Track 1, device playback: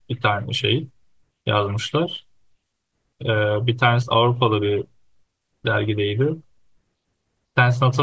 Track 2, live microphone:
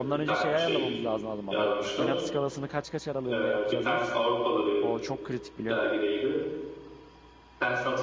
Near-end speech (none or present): present